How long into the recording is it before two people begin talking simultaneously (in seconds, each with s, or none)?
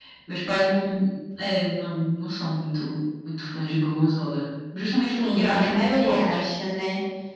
4.9 s